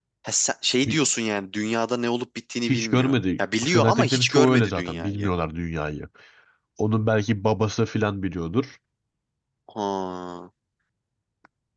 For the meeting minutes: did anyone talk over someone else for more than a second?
Yes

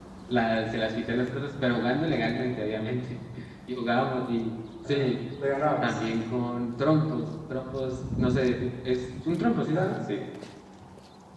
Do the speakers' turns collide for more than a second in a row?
No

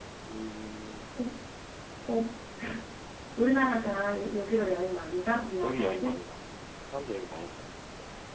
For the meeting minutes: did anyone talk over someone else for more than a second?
No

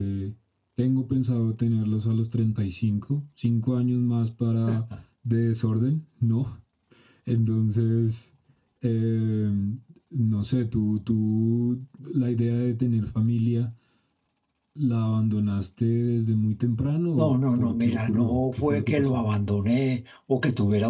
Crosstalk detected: Yes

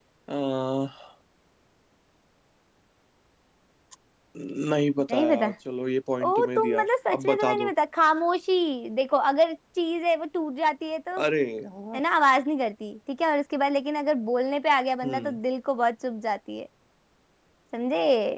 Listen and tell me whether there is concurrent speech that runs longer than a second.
Yes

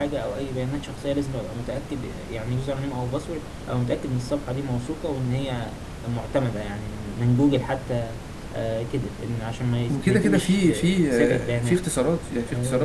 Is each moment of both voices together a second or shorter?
No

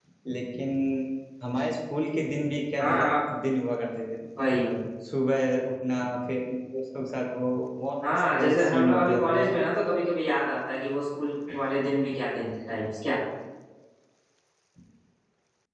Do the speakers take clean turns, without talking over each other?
No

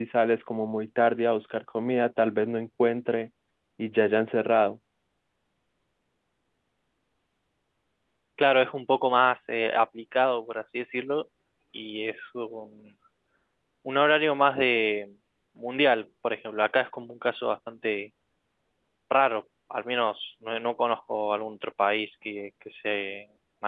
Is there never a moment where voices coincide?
Yes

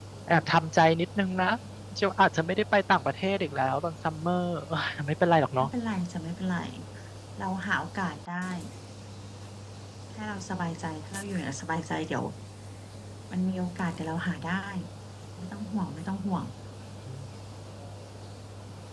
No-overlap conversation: Yes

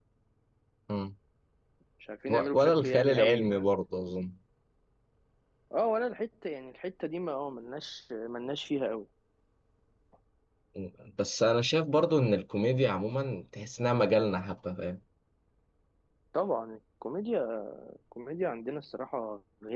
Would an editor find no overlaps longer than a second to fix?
No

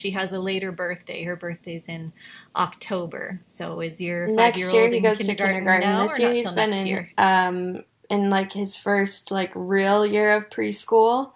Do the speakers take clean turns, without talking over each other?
No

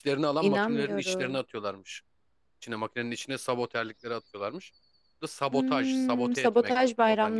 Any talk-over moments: Yes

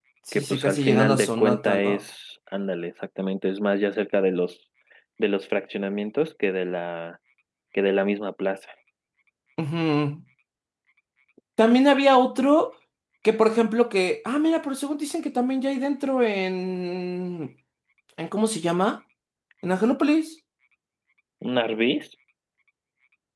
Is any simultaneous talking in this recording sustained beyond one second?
Yes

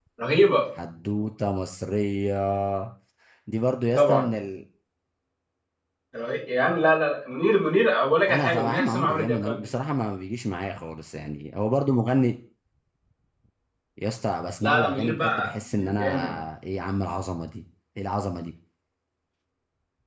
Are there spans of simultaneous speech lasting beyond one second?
Yes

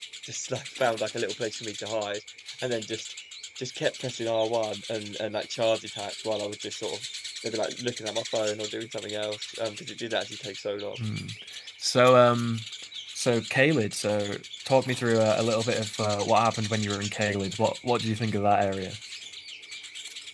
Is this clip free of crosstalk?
Yes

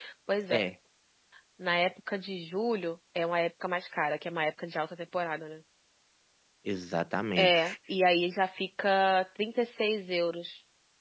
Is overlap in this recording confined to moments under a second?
Yes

